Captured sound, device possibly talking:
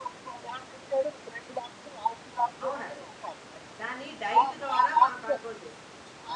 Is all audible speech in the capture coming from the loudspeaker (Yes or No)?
No